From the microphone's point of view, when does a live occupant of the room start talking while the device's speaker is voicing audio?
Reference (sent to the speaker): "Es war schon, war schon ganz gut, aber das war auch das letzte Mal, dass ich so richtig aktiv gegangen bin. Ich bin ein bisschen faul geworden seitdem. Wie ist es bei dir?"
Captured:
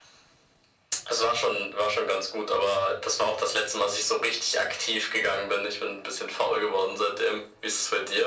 none

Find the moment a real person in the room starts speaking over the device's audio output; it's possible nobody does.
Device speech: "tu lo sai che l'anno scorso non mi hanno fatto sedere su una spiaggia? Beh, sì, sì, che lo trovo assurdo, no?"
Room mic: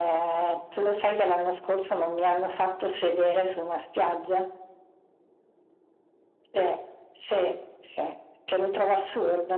none

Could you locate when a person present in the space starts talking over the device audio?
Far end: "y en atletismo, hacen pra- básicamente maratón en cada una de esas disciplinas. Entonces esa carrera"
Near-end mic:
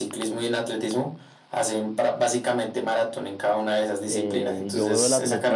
4.1 s

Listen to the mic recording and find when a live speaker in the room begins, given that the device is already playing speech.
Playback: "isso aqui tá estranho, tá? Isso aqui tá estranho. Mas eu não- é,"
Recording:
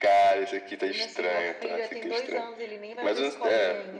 0.8 s

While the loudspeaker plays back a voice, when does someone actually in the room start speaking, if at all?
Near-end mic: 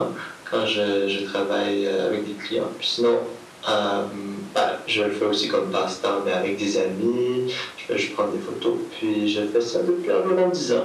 none

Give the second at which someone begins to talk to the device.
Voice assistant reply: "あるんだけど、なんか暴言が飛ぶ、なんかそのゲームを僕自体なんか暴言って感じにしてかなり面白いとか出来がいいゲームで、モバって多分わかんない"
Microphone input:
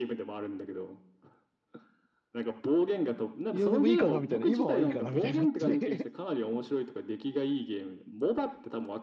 3.5 s

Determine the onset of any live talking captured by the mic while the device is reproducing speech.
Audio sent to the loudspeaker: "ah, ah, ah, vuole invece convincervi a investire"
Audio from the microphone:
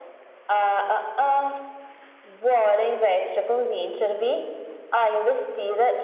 none

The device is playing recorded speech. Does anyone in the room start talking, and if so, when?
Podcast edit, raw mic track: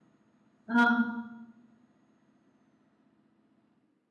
0.6 s

